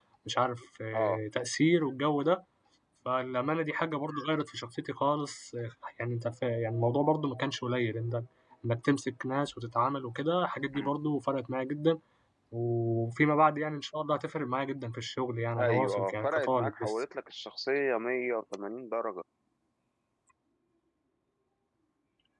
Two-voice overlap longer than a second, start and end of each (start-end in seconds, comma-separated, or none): 15.6-16.9